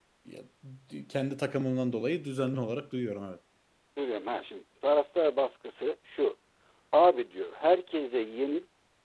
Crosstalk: none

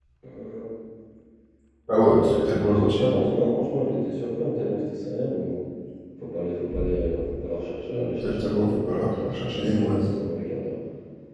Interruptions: present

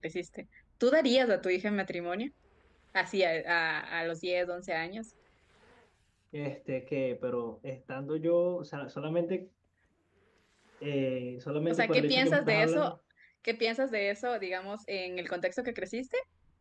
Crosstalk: present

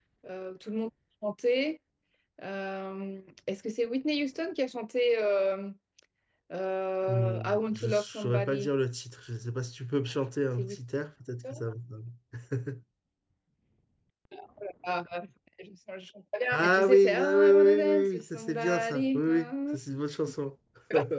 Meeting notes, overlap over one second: present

